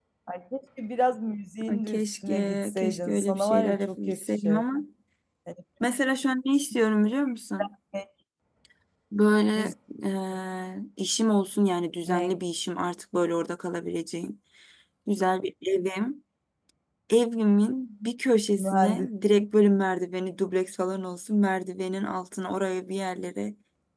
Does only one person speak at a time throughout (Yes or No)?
No